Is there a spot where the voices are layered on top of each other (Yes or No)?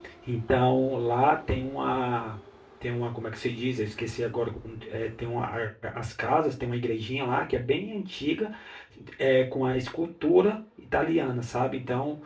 No